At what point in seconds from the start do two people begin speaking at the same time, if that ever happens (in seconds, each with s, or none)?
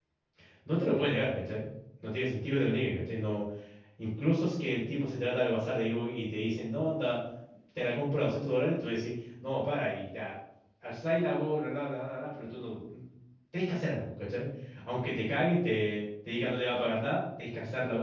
none